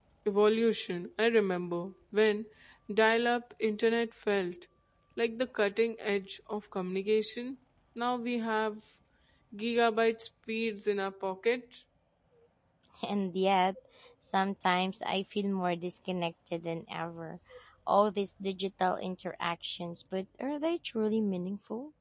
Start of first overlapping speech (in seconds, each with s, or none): none